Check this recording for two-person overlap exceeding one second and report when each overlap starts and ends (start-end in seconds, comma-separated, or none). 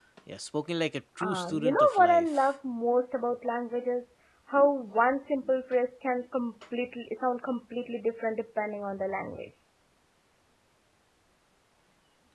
1.2-2.5